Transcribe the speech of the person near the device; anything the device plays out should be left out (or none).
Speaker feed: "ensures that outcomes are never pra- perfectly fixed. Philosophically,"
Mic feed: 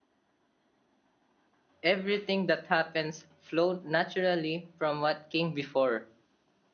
everything that happens flowed naturally from what came before.